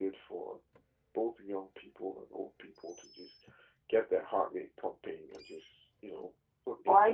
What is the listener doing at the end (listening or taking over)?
taking over